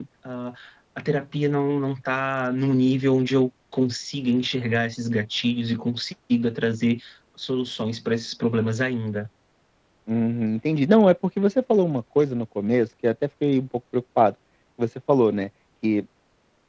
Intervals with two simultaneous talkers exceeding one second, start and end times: none

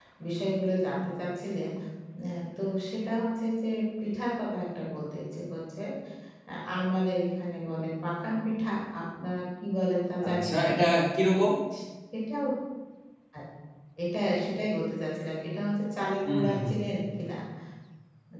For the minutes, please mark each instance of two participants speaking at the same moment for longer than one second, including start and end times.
none

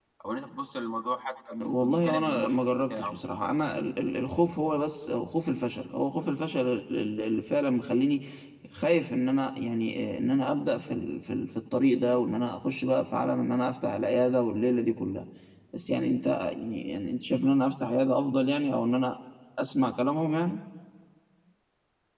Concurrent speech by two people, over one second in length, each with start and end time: 1.6-3.1

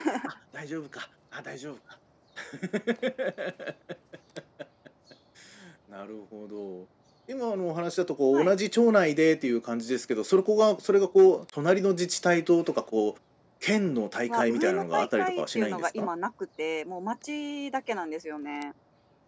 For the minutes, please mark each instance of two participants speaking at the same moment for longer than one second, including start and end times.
14.3-16.1

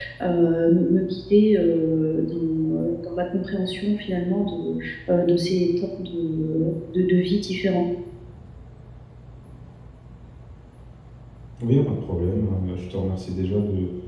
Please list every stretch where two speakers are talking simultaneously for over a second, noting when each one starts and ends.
none

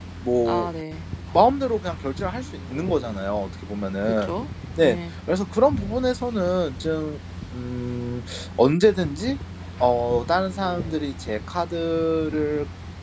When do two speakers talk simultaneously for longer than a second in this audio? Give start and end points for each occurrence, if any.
none

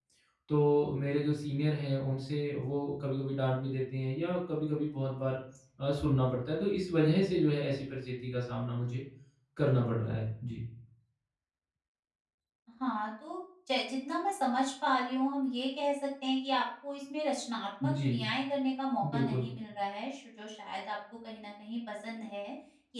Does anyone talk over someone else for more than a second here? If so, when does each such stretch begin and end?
none

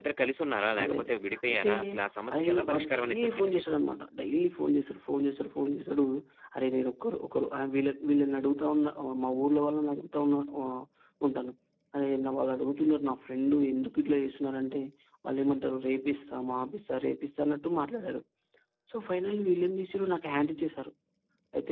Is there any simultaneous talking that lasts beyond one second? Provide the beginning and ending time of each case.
2.3-3.8

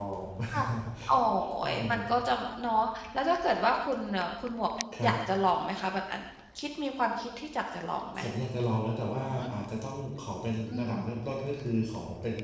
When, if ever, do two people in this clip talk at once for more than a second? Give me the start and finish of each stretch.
none

